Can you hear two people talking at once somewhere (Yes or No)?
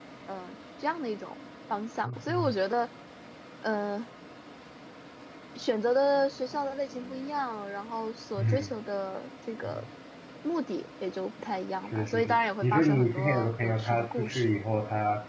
Yes